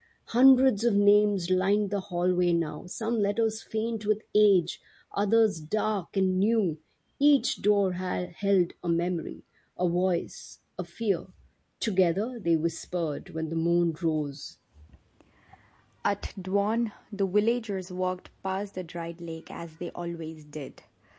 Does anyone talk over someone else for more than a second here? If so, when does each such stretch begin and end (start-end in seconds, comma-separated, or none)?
none